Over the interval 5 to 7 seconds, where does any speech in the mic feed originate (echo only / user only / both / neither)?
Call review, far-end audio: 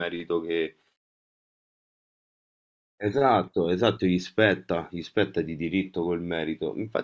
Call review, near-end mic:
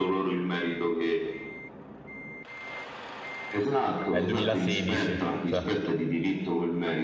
both